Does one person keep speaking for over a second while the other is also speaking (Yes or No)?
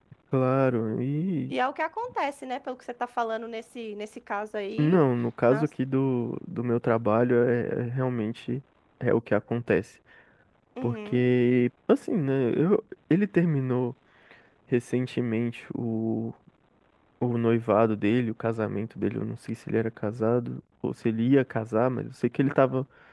No